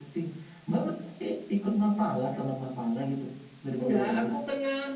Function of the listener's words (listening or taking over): taking over